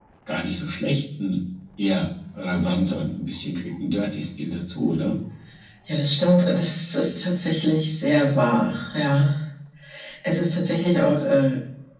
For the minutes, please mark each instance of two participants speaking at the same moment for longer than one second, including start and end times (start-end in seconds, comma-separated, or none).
none